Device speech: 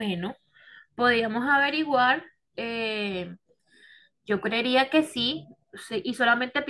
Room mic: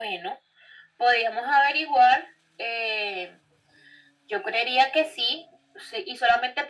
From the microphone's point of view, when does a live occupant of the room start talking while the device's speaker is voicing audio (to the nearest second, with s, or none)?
none